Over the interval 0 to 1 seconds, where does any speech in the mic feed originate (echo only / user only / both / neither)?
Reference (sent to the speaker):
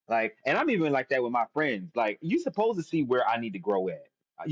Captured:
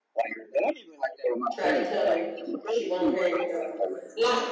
echo only